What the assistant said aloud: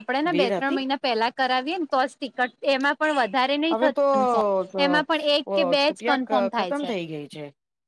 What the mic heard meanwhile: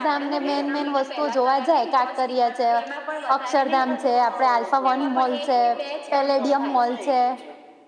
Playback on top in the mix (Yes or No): No